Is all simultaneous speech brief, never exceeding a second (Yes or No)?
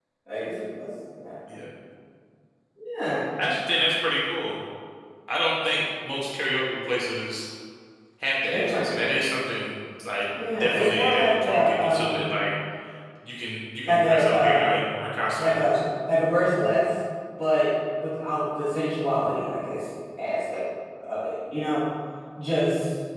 No